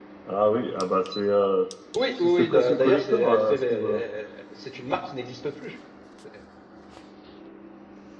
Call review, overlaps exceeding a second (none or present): present